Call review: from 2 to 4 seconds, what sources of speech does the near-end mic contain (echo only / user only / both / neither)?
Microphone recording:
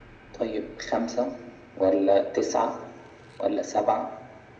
echo only